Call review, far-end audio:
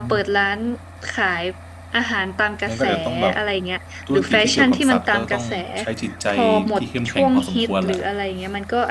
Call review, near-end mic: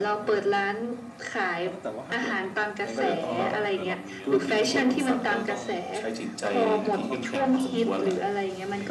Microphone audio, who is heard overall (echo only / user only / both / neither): both